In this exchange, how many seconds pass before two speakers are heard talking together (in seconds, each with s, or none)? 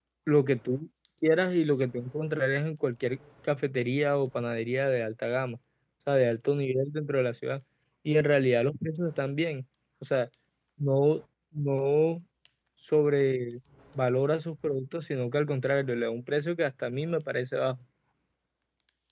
none